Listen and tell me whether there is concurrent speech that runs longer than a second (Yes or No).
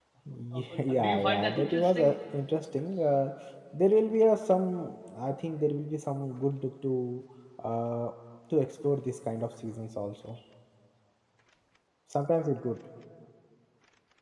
Yes